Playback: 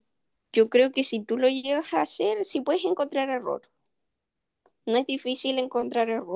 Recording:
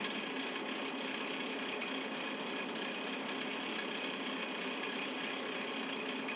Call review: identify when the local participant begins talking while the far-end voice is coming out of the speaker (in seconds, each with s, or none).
none